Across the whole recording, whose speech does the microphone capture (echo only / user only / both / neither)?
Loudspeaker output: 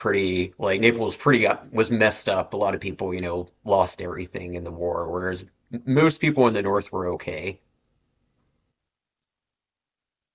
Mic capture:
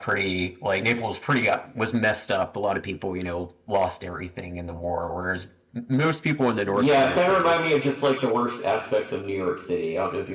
both